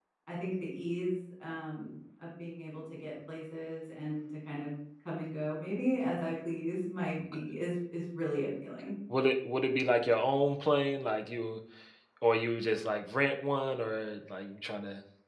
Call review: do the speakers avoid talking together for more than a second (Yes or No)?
Yes